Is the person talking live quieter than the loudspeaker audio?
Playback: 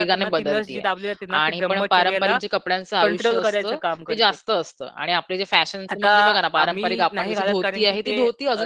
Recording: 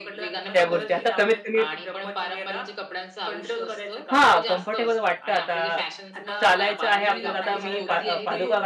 No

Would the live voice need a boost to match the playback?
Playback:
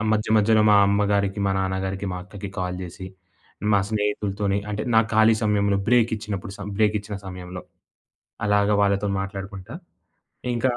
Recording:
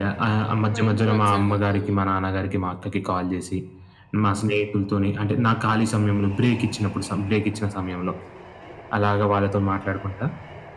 Yes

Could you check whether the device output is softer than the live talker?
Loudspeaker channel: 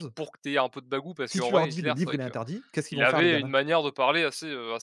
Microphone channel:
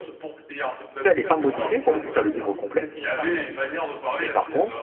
Yes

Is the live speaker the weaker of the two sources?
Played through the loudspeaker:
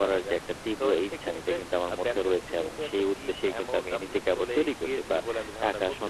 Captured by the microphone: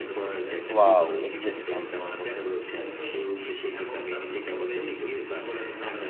No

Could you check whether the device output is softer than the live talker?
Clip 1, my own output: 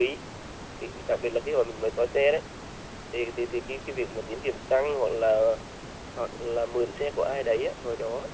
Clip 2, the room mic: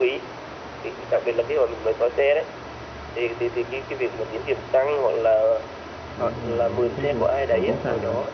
No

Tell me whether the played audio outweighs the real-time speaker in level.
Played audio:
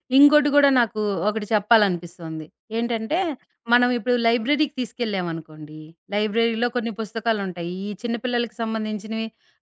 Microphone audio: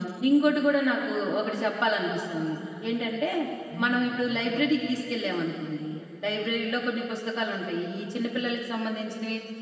Yes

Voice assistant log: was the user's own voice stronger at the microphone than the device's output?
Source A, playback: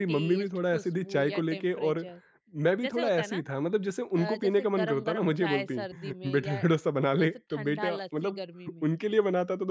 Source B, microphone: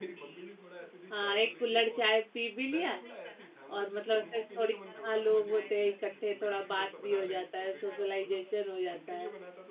Yes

